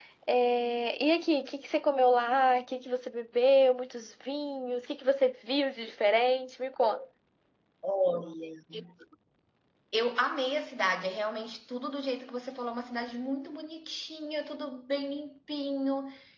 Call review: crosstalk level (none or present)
none